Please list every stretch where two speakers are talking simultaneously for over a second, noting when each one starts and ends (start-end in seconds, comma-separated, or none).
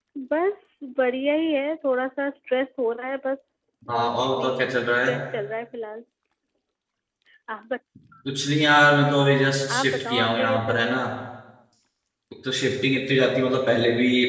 3.9-5.1, 9.8-11.0